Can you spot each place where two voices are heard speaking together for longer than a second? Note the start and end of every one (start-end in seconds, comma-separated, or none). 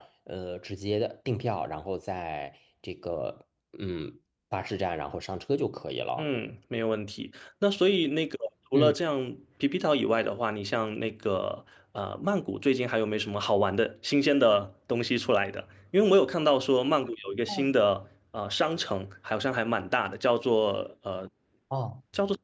none